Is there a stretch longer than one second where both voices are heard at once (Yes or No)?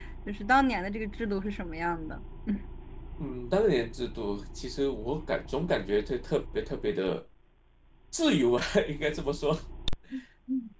No